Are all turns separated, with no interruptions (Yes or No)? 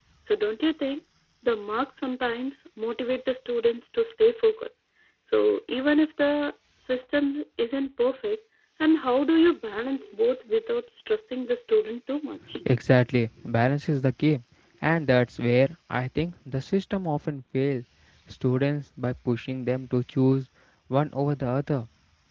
Yes